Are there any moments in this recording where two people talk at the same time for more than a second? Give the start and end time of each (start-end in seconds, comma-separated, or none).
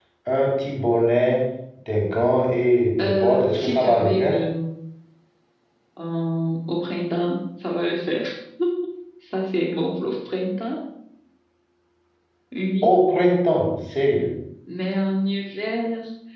3.0-4.4